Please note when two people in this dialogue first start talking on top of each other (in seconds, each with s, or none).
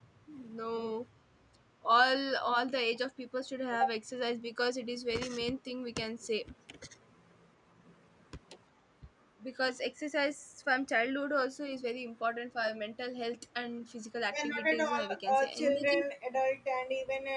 14.3 s